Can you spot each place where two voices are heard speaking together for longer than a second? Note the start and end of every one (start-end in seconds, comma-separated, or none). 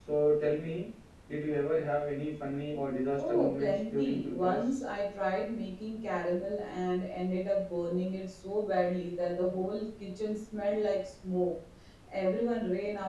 3.2-4.7